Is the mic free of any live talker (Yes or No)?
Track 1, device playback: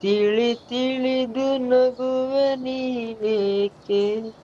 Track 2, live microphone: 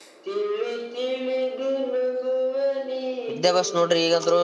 No